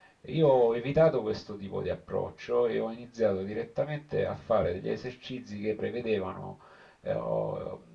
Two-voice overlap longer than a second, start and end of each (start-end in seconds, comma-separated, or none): none